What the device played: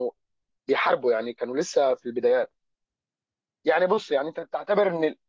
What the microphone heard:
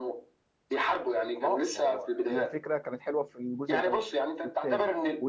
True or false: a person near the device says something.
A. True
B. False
A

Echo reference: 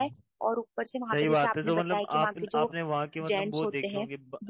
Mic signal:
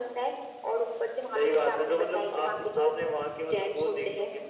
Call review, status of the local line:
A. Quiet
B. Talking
A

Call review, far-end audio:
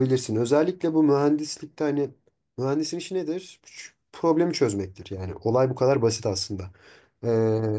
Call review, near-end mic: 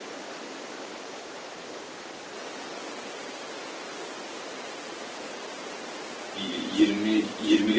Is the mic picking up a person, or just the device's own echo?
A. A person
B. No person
A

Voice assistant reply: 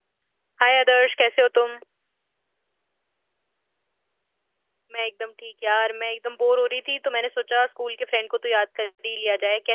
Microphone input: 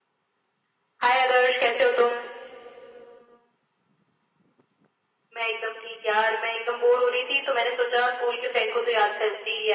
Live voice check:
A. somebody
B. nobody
B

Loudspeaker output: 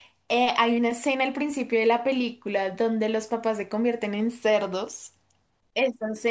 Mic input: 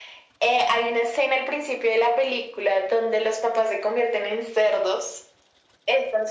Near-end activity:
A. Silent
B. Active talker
A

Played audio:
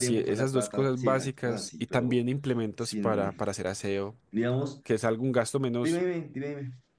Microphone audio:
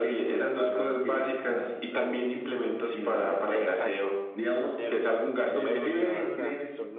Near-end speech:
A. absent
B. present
B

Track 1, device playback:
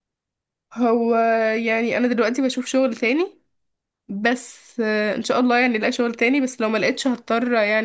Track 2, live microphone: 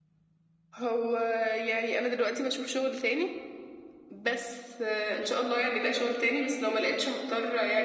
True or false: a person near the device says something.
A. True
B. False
B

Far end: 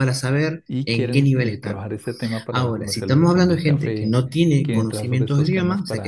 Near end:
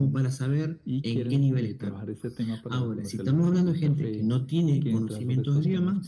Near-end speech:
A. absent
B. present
A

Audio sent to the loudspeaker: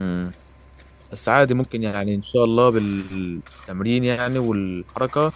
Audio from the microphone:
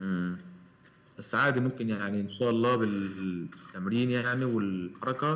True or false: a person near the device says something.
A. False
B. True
A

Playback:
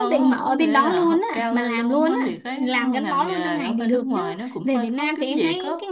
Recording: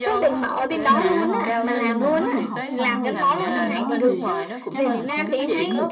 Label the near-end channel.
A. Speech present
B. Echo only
A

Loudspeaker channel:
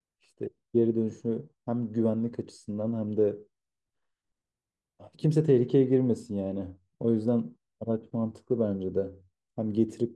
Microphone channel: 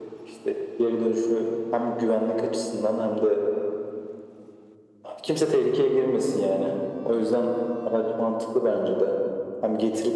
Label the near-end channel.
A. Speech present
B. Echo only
B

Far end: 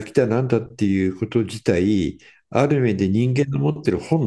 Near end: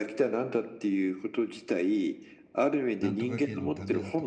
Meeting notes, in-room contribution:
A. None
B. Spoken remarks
B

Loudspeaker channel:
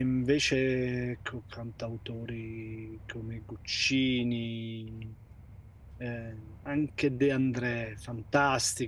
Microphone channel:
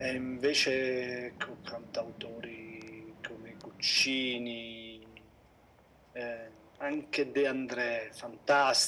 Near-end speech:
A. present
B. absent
B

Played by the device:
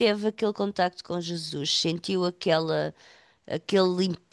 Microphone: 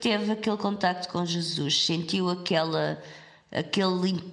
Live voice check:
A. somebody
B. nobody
B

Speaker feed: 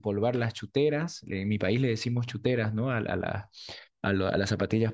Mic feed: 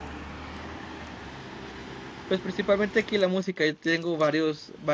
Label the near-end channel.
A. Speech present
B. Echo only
A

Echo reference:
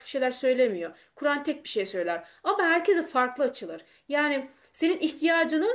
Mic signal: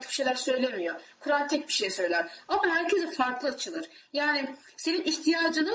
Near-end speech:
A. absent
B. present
A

